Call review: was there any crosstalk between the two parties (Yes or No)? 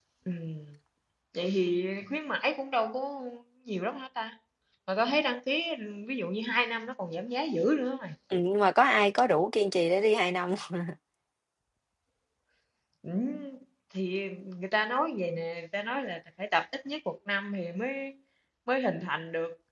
No